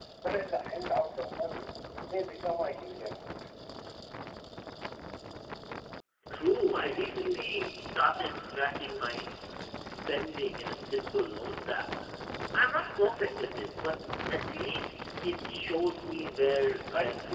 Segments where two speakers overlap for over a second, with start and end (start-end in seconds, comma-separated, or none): none